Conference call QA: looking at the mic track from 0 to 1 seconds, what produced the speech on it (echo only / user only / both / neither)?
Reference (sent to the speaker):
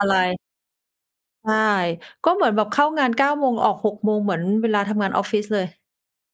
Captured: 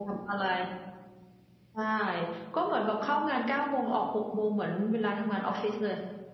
echo only